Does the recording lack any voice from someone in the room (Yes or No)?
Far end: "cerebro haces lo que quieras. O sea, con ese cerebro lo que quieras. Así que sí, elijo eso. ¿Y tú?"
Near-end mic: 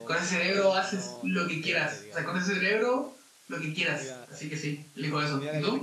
No